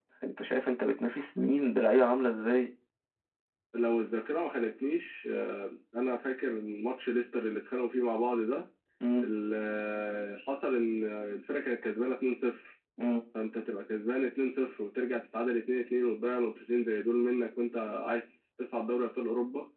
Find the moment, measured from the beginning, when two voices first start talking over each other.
none

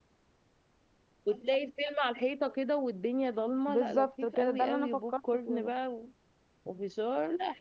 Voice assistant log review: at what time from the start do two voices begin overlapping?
3.7 s

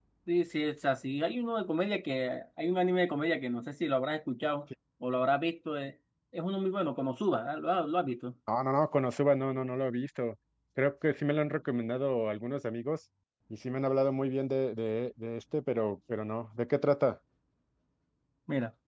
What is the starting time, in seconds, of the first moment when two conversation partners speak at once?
none

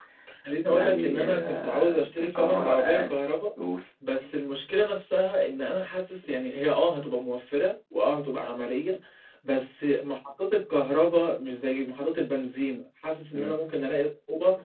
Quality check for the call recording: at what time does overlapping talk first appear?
0.7 s

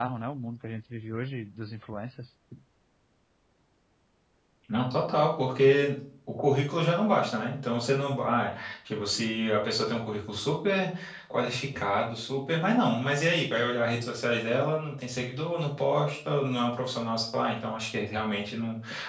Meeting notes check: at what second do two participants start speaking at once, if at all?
none

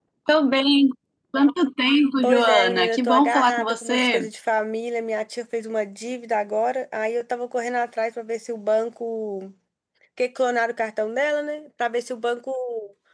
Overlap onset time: 2.2 s

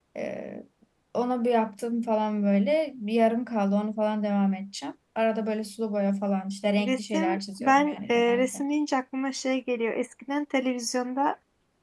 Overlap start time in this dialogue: 6.8 s

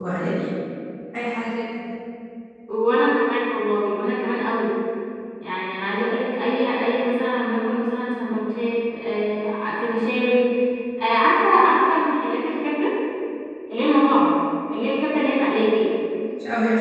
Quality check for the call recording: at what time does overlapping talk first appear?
none

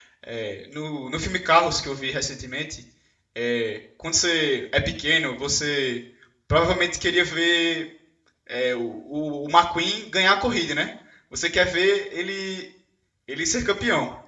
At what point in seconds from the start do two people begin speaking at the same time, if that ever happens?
none

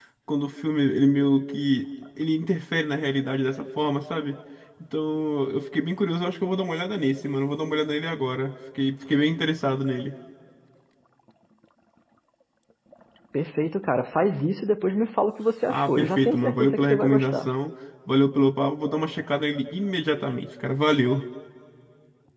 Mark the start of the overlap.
15.7 s

